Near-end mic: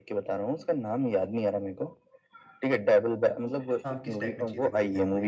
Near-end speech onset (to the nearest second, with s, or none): 4 s